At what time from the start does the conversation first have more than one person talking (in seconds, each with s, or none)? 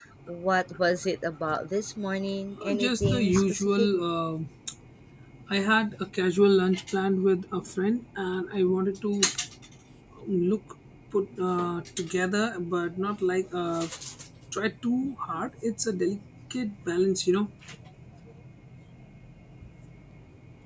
2.6 s